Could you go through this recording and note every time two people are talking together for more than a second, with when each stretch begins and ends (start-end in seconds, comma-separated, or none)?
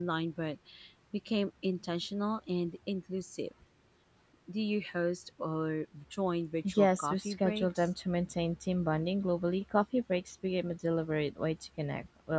6.6-7.9